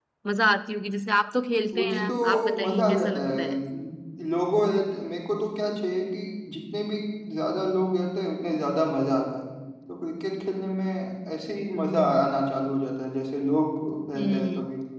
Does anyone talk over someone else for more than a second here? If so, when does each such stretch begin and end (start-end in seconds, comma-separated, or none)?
1.7-3.5